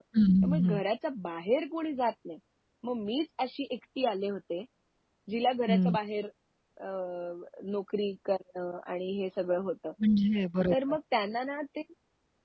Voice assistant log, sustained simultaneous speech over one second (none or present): none